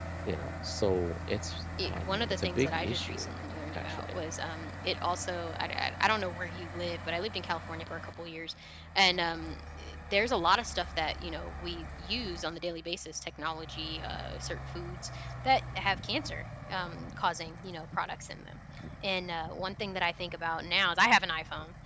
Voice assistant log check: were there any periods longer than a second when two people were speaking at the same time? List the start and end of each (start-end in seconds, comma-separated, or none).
1.8-3.3